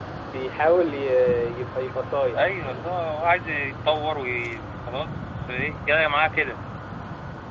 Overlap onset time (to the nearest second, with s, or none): none